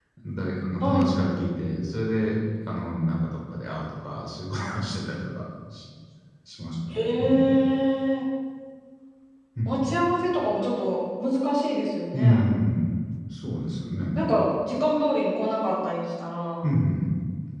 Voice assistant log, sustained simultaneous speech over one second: none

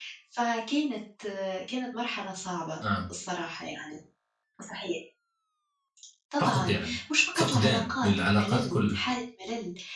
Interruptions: present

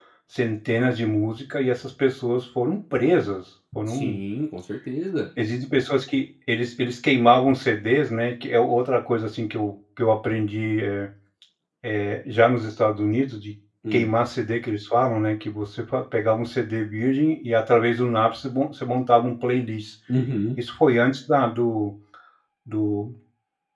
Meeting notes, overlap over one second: none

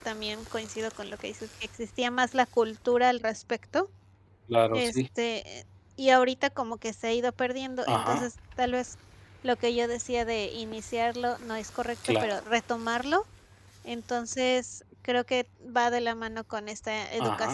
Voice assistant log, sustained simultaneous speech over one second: none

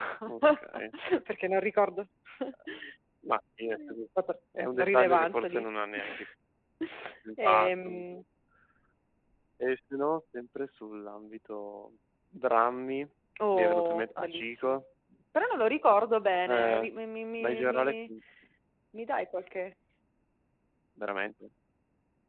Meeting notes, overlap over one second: present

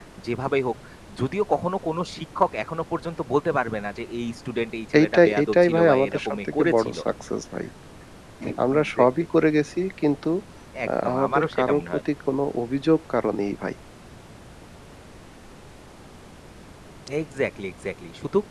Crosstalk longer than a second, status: present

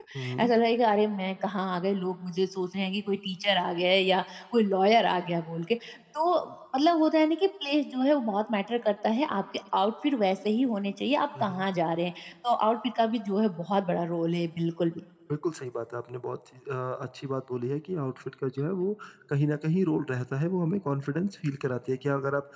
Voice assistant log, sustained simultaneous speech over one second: none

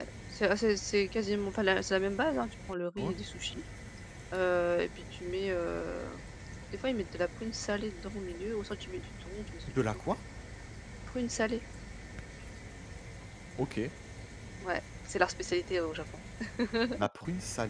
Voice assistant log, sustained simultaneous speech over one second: none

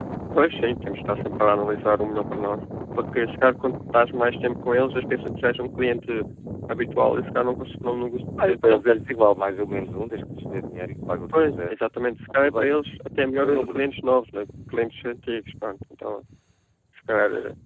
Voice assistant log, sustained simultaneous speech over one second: none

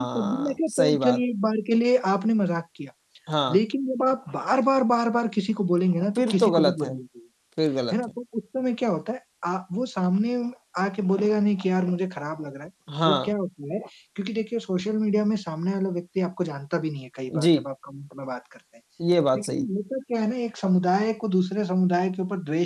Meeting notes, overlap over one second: present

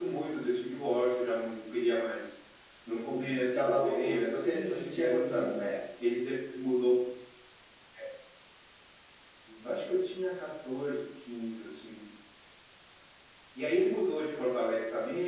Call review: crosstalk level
present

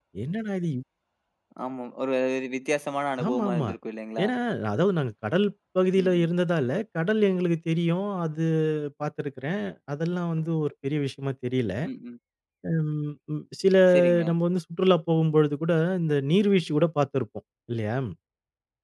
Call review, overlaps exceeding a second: none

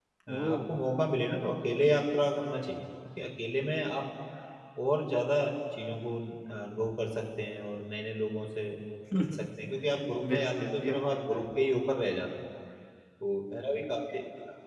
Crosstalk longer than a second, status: present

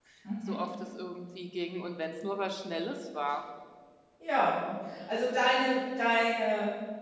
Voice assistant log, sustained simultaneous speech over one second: none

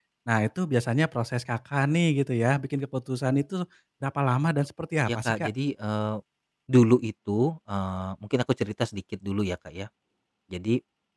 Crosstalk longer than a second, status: none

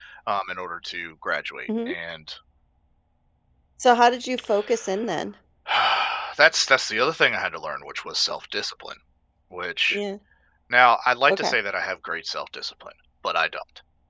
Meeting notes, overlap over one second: none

